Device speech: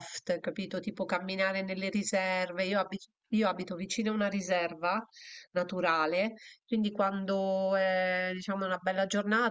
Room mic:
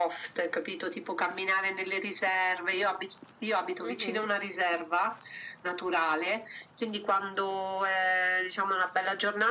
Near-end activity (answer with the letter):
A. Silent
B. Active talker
B